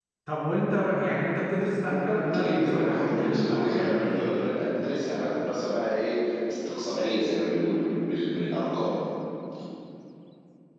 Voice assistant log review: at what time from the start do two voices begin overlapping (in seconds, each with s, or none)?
1.8 s